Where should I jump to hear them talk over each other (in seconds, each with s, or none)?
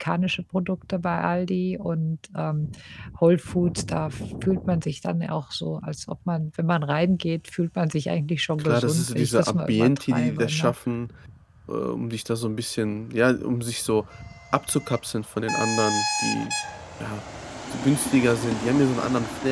8.6 s